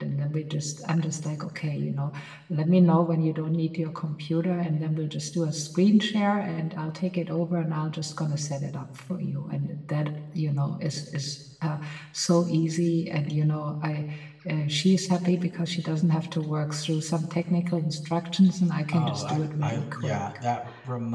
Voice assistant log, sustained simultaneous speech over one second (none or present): present